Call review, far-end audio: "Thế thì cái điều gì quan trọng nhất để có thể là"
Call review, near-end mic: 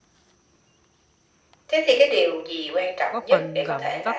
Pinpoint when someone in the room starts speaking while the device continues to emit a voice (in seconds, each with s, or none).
3.1 s